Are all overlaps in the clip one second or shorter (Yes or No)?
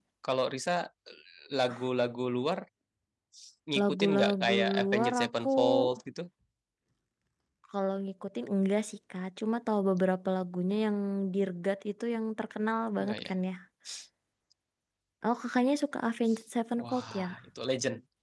No